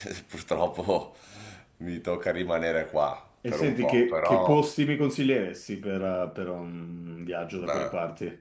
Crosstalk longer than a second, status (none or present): present